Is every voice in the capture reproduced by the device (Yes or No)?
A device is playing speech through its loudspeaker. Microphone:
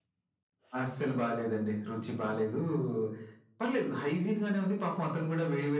No